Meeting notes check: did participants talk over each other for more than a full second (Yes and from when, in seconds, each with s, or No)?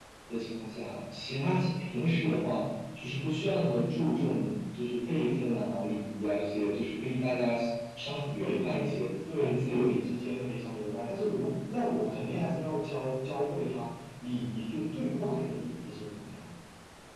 No